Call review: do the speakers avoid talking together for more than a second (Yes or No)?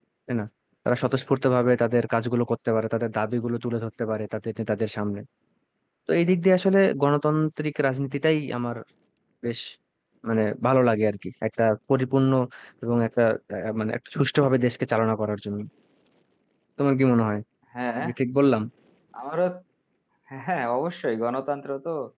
Yes